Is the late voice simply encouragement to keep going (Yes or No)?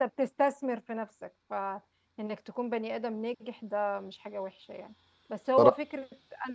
Yes